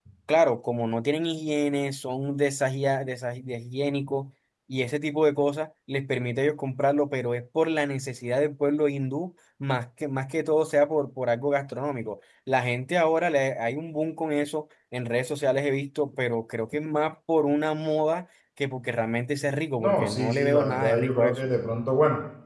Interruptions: present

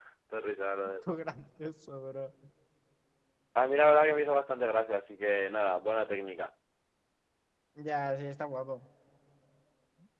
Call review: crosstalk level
none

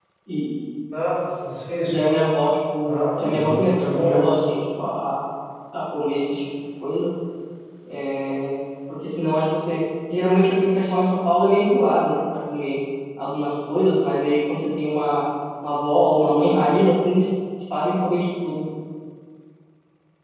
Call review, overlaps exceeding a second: present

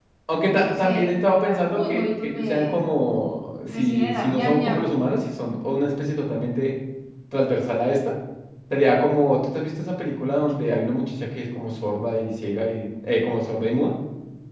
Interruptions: present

